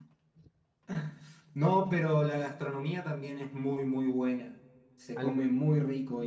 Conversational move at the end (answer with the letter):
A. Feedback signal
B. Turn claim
A